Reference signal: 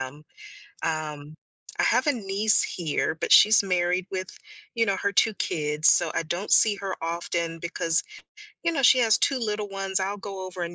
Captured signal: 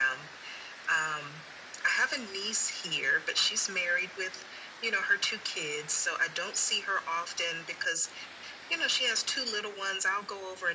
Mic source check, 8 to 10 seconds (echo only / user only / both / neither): echo only